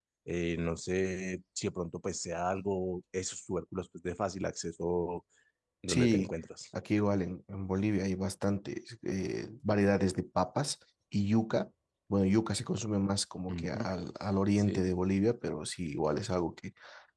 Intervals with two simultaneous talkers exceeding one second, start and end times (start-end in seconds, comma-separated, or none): none